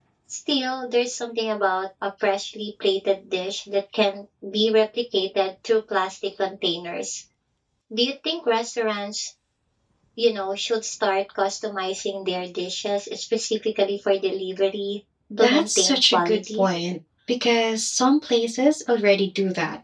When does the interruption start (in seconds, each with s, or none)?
15.3 s